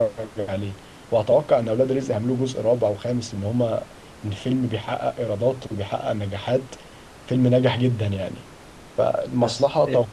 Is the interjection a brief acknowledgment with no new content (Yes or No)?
Yes